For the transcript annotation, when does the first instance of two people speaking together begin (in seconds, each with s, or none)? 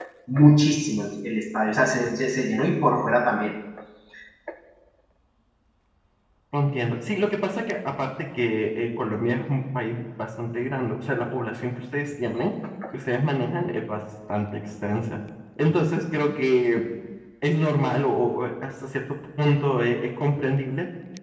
none